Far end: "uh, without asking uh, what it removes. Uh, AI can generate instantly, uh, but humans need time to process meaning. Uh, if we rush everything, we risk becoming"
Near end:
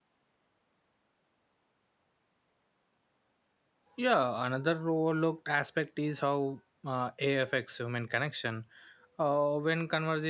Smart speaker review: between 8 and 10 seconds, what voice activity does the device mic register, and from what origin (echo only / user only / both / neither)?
user only